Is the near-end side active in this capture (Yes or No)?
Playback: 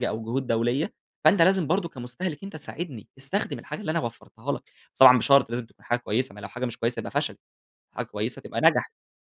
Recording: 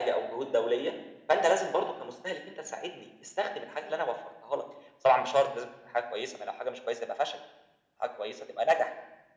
No